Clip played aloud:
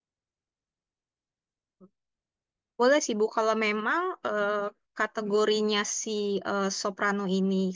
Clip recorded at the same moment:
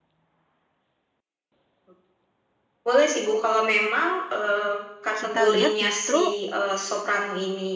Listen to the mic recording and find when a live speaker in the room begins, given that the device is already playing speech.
5 s

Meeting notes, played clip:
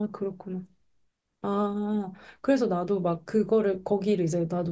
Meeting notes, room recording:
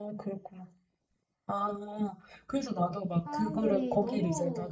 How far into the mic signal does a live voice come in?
3 s

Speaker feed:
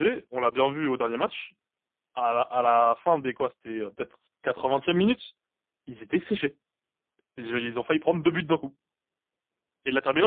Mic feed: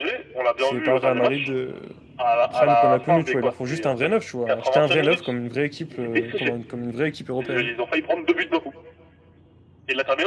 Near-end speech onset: 1 s

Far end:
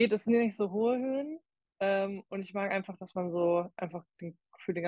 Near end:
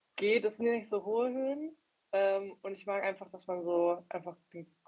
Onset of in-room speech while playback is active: none

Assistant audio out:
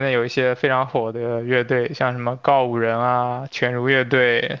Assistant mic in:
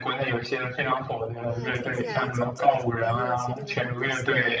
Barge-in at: 1 s

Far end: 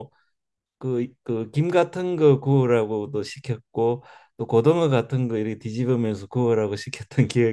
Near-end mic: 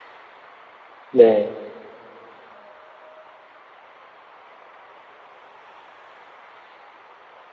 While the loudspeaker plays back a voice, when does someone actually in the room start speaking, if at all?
1 s

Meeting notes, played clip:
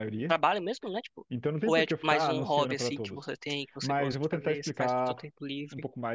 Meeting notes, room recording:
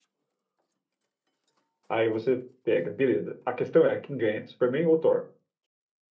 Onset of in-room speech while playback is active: 2 s

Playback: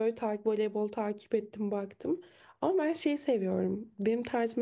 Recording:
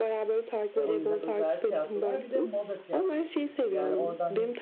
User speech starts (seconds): 1 s

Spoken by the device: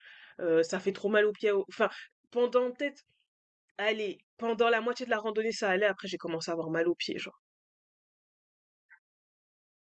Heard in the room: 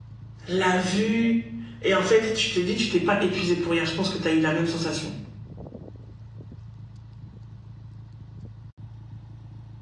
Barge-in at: 0 s

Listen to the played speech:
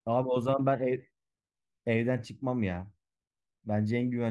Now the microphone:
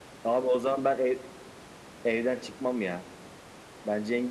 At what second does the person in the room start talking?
none

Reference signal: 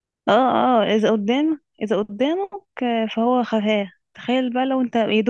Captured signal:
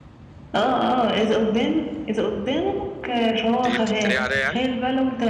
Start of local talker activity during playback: 4 s

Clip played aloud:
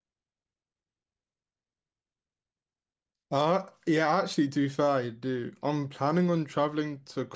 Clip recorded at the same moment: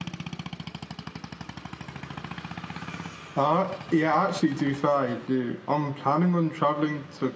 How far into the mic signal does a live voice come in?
none

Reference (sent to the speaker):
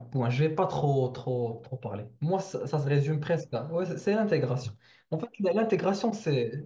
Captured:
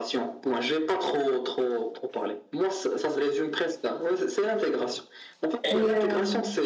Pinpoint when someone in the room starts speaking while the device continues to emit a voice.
6 s

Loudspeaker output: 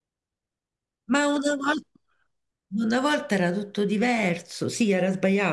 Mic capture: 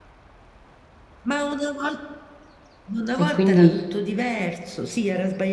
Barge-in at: 3 s

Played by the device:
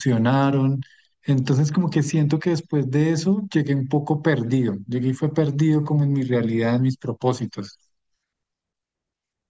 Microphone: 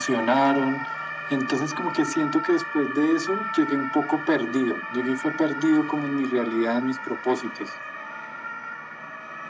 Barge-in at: none

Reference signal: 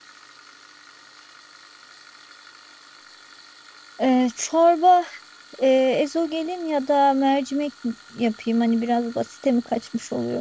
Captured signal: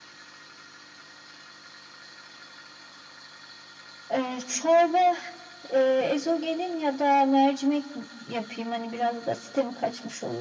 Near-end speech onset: none

